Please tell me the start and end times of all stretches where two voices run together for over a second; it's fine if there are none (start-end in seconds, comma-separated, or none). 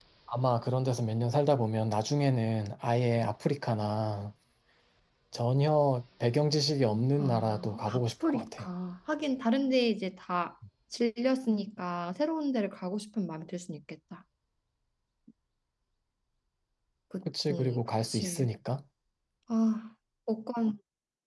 7.2-8.7, 17.3-18.5